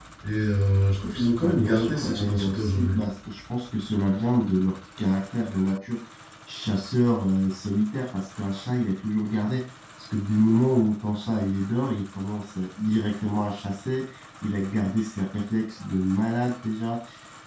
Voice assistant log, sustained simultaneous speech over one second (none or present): present